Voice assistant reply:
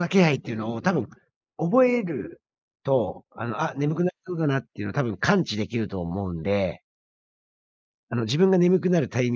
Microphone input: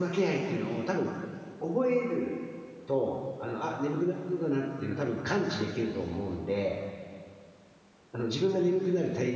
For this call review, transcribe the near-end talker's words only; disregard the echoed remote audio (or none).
none